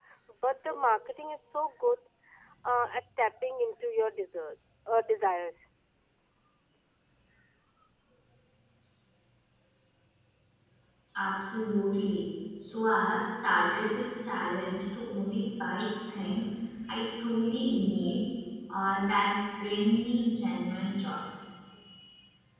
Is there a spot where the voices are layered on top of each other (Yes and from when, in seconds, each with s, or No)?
No